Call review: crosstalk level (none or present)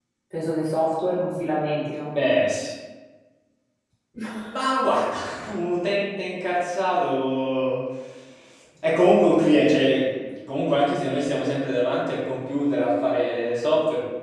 none